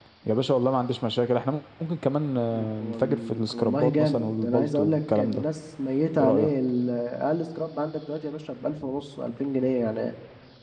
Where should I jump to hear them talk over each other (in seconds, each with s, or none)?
2.8 s